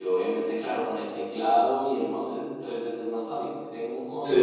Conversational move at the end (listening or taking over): listening